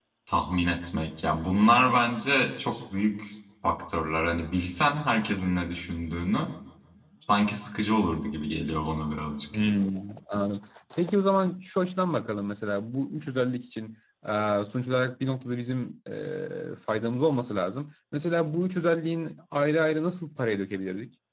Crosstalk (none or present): none